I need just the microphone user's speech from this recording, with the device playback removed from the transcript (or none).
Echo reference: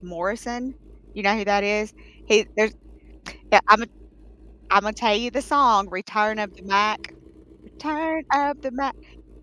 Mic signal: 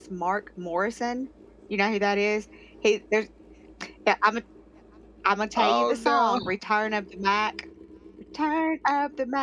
Oh, no.